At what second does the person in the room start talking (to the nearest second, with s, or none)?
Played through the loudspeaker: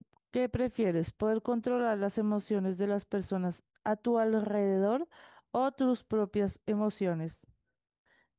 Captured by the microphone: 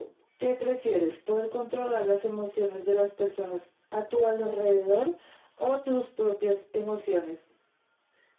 none